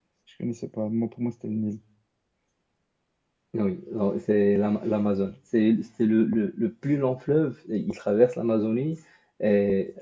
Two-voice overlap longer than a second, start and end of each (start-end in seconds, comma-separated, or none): none